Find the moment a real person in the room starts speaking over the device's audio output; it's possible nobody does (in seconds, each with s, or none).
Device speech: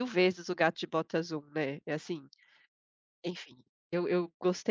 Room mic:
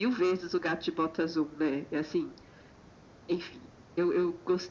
none